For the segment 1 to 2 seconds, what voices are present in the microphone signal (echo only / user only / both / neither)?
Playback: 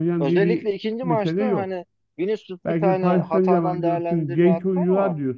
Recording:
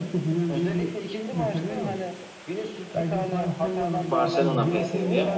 echo only